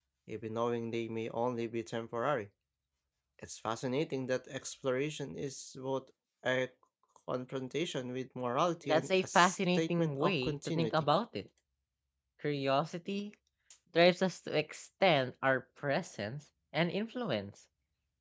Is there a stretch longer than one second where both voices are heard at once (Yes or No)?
Yes